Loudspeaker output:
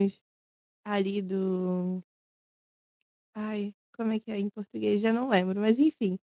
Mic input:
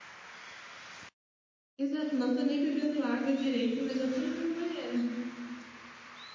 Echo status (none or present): none